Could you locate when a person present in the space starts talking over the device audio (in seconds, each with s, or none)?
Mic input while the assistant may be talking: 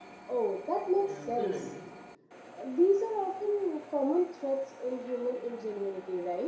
1.0 s